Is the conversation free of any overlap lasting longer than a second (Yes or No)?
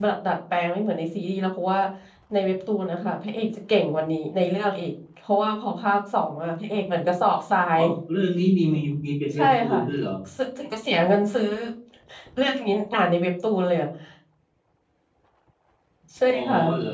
Yes